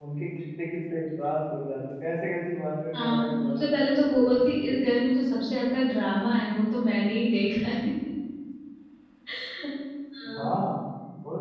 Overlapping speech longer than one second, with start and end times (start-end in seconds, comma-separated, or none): 2.9-4.4